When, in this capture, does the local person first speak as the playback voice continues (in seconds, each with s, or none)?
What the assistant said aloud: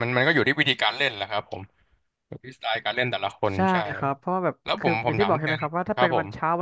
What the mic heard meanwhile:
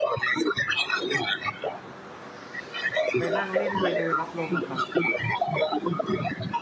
3.2 s